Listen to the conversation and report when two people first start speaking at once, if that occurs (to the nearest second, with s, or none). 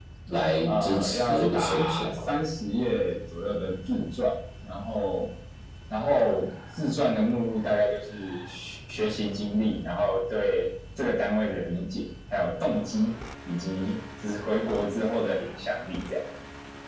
1 s